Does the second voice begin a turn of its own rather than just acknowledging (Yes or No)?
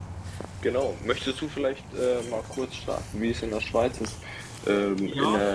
No